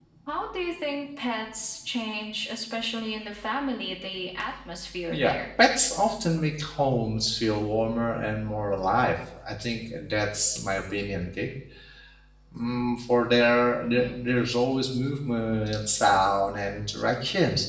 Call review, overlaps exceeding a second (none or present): none